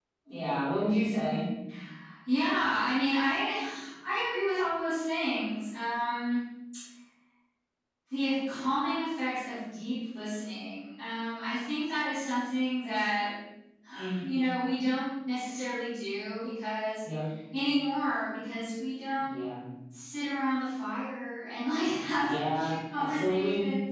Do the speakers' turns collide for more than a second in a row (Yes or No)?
Yes